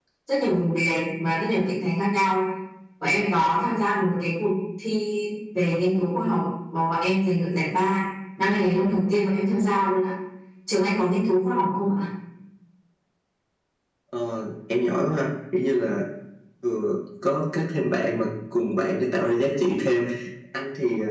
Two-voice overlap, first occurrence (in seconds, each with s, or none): none